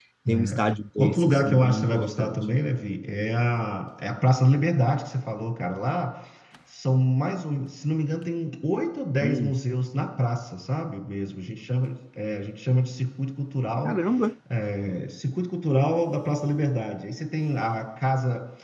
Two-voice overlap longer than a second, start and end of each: 1.0-2.4

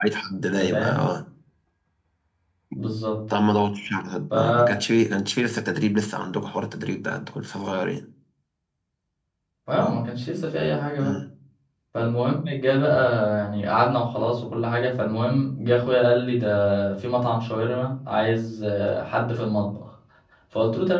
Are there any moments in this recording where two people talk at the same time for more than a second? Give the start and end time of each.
none

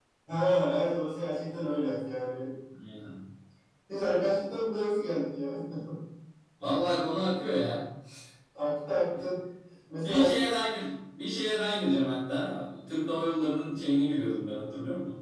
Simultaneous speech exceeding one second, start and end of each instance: none

